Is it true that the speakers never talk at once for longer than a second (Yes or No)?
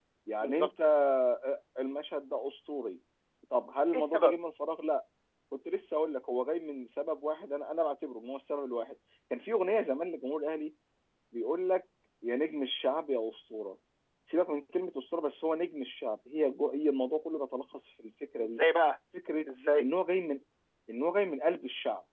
Yes